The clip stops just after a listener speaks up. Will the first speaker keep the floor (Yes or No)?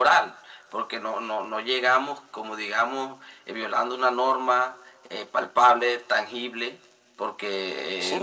No